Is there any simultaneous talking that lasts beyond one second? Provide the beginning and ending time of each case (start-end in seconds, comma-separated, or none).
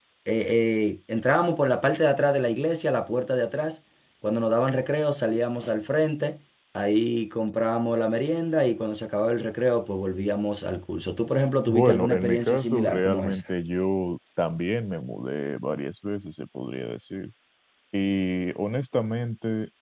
11.7-13.4